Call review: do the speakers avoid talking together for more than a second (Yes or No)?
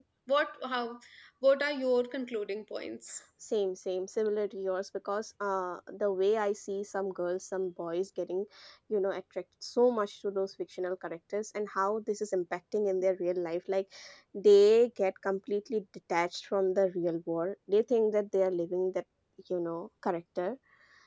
Yes